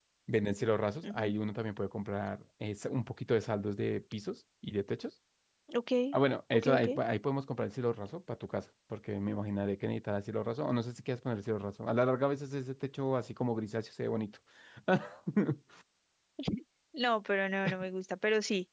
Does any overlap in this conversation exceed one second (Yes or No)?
No